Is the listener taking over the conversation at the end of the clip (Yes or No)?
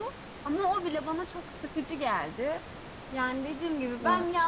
No